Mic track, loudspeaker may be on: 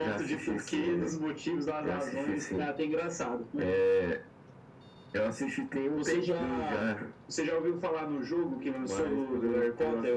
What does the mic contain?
echo only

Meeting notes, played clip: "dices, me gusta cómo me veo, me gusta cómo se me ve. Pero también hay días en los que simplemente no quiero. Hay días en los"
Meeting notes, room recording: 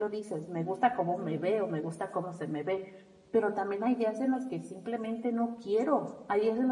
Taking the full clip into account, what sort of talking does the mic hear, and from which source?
both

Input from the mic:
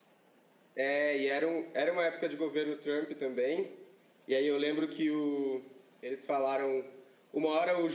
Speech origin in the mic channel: user only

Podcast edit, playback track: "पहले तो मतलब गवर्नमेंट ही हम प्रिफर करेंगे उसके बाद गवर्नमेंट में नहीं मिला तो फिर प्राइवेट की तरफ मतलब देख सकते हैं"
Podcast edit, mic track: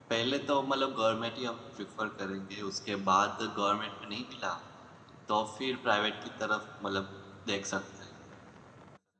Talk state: echo only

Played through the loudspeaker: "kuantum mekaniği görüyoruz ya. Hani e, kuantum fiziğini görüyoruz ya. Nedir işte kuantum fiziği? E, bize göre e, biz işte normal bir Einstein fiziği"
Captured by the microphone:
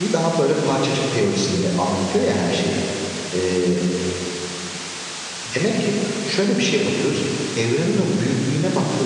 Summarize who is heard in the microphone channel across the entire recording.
user only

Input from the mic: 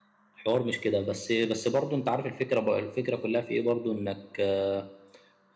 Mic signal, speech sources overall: user only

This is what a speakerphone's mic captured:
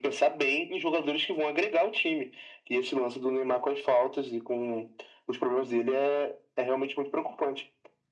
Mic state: echo only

